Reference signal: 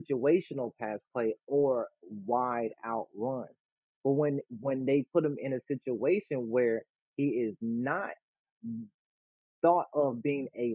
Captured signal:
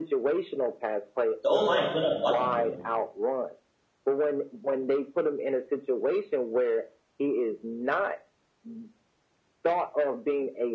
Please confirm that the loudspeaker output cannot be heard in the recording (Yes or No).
No